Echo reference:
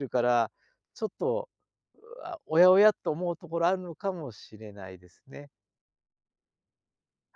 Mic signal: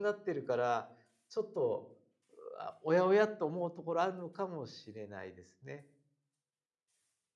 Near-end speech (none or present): none